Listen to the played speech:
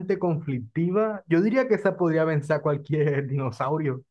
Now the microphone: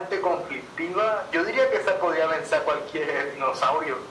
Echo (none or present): present